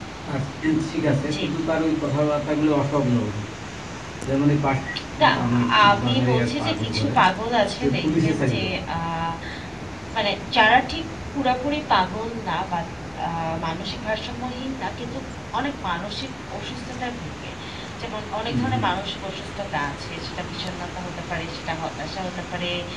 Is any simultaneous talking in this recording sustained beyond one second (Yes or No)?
Yes